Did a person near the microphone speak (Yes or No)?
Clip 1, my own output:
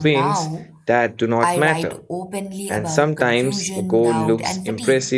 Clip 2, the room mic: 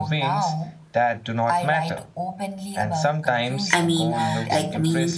Yes